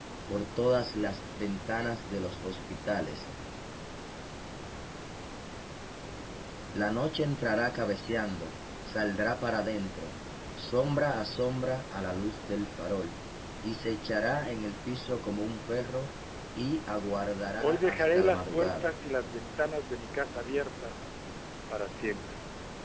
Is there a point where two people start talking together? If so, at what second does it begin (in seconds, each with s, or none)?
17.6 s